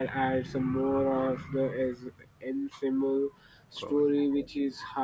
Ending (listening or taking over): listening